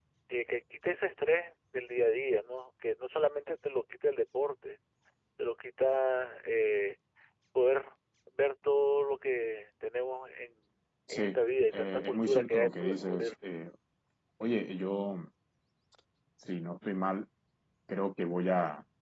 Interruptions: present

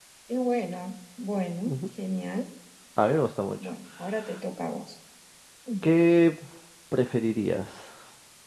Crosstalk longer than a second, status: none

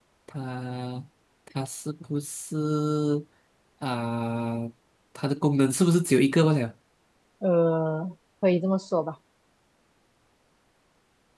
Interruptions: none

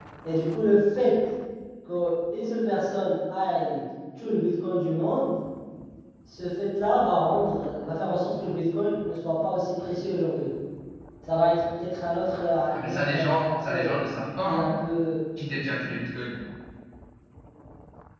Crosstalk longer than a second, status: present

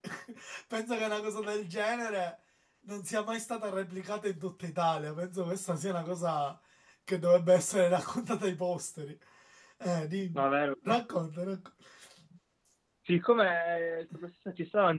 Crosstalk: none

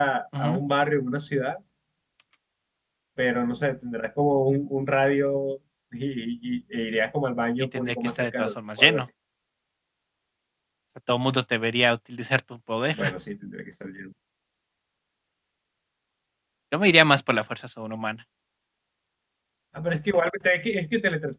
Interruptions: present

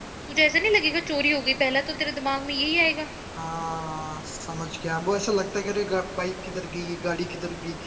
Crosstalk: none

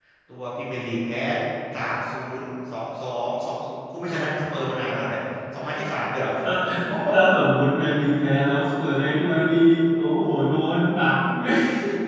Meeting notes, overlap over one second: none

